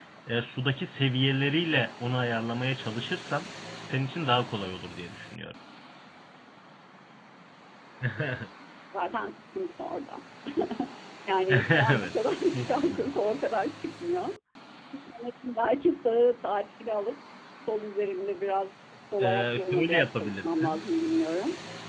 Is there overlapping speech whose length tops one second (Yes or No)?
Yes